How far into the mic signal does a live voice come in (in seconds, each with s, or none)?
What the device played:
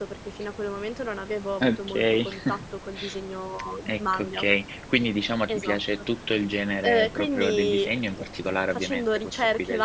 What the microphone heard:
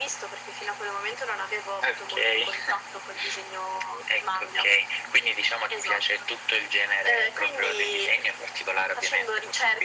none